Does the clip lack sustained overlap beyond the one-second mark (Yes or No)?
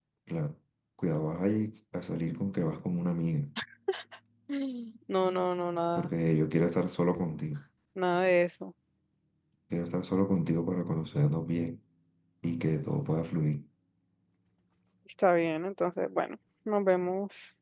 Yes